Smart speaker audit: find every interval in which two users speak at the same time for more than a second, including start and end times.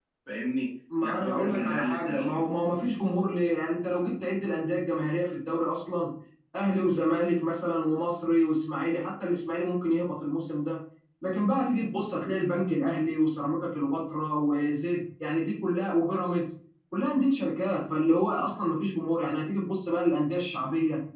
1.0-2.4

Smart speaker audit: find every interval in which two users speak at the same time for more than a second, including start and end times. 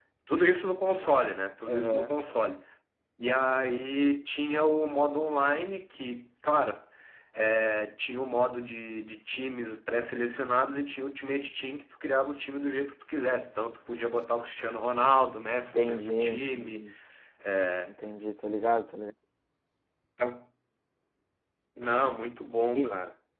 15.5-16.8

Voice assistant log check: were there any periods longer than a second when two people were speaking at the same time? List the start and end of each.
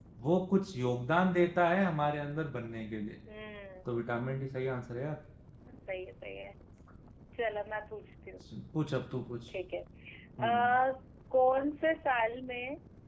none

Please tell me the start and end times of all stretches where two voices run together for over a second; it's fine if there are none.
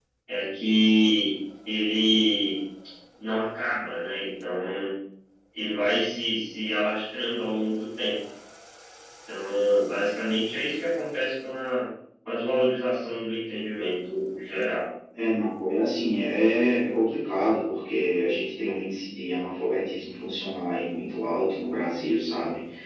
none

